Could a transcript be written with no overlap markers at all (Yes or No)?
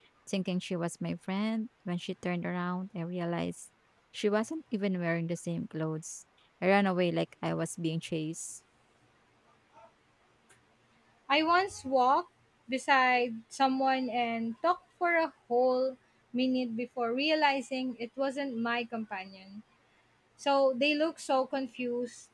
Yes